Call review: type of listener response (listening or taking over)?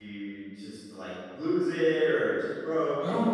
taking over